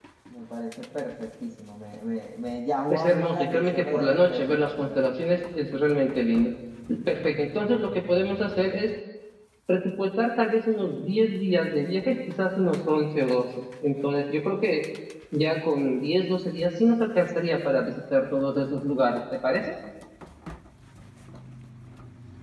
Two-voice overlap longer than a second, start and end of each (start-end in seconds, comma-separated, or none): 2.9-5.0